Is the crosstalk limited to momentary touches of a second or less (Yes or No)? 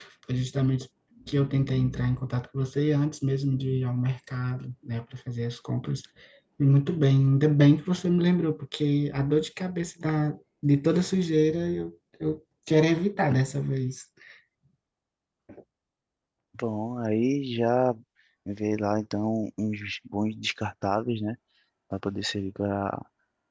Yes